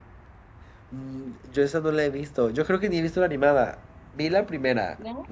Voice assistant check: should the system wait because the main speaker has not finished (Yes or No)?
Yes